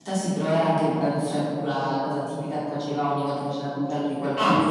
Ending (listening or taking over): listening